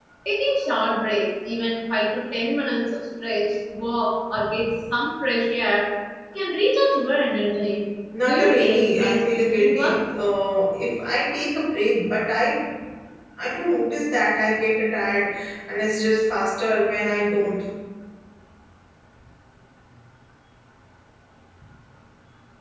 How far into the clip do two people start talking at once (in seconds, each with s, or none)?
8.2 s